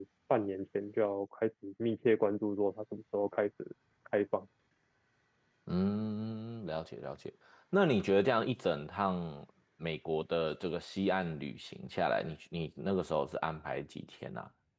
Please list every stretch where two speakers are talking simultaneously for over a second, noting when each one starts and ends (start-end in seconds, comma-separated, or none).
none